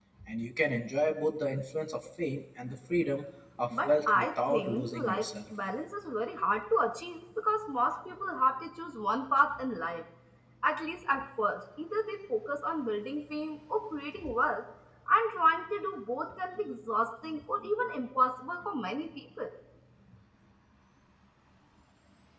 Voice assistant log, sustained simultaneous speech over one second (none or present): present